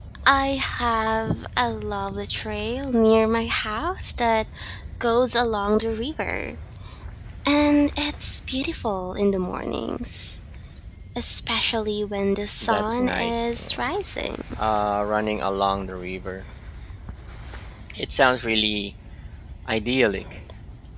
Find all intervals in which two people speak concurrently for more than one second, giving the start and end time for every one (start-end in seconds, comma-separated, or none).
12.6-13.8